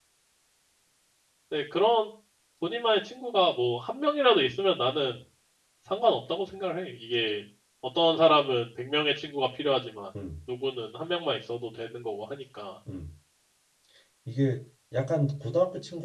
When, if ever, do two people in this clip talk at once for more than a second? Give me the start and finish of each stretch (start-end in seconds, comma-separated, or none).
none